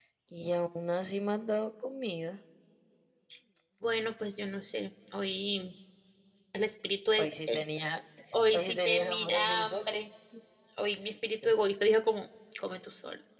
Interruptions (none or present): present